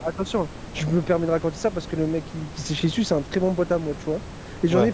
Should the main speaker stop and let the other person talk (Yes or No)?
No